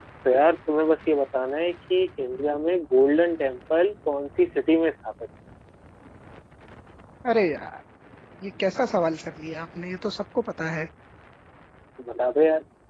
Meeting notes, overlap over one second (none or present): none